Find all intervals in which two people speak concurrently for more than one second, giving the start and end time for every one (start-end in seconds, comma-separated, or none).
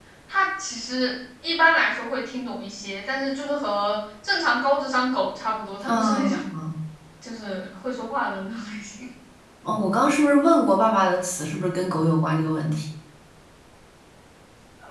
none